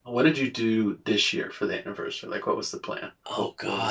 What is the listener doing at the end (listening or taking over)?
taking over